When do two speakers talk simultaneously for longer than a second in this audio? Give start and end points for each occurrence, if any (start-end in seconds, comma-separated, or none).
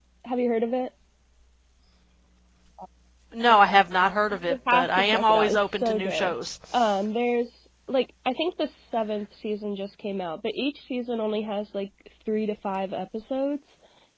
4.5-6.3